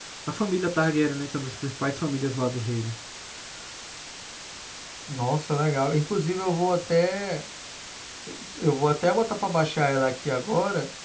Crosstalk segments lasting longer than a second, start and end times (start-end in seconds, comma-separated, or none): none